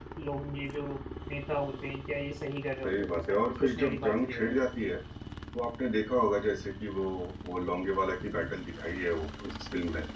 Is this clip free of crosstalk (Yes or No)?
No